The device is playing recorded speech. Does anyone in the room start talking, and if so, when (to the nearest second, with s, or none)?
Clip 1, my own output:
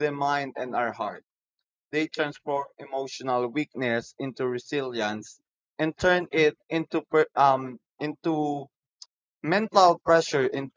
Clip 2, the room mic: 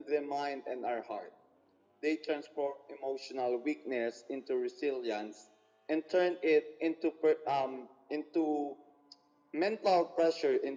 none